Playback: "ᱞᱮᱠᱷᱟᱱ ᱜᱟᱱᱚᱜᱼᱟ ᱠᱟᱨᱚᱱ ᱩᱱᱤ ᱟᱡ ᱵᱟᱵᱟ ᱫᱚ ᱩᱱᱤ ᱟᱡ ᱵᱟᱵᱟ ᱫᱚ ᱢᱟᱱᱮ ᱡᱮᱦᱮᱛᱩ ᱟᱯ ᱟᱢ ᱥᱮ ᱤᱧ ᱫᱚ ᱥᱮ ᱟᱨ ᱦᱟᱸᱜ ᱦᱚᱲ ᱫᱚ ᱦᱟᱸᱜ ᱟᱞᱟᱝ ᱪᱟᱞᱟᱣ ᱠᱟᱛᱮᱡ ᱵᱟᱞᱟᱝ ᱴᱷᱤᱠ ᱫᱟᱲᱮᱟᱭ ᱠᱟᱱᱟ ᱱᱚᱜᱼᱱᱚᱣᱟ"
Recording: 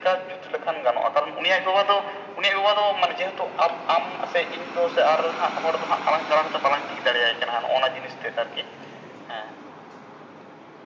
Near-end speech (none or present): none